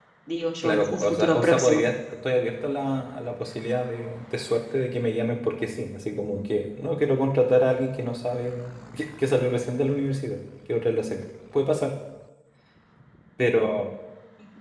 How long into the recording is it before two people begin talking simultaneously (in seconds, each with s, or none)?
0.6 s